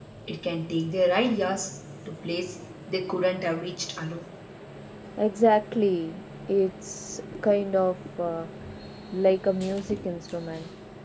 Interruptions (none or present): none